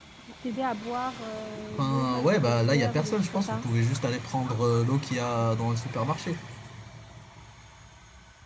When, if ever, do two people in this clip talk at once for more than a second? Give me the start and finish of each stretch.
1.7-3.6

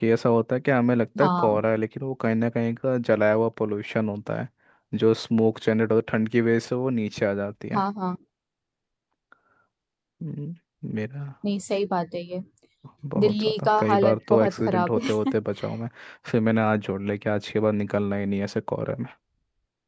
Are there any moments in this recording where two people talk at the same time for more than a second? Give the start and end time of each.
13.2-15.3

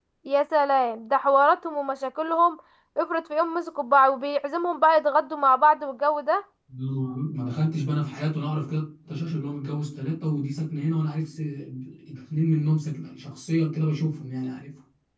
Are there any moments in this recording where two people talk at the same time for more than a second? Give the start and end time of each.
none

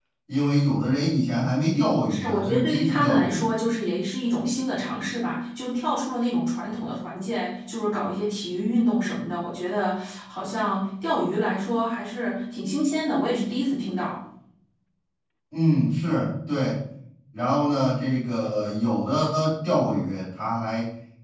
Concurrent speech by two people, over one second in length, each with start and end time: 2.1-3.4

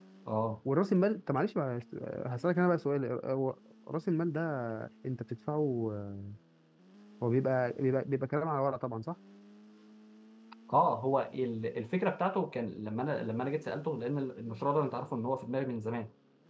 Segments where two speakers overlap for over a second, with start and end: none

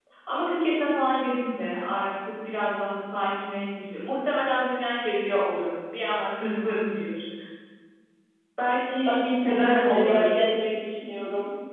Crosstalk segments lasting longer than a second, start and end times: 9.0-10.4

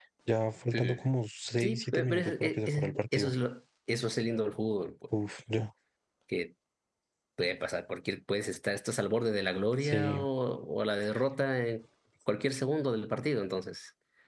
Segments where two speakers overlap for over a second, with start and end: 1.6-3.3

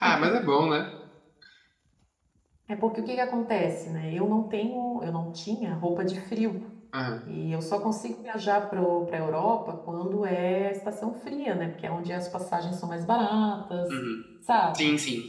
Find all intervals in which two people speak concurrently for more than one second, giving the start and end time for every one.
none

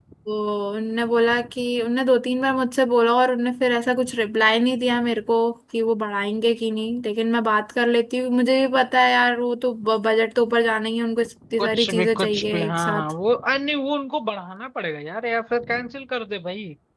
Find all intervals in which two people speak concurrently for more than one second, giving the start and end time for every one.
11.6-13.1

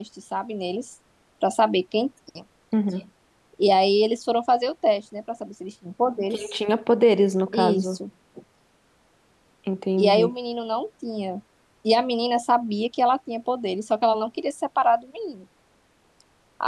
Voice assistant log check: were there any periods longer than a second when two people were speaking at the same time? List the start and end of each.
none

